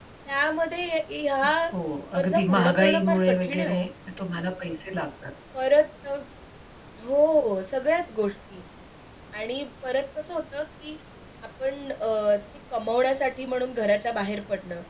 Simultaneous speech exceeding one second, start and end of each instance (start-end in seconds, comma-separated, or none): 2.2-3.8